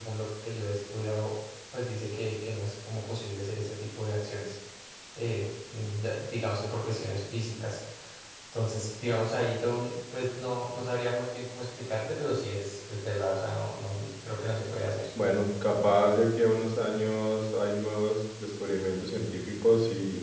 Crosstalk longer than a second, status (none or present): none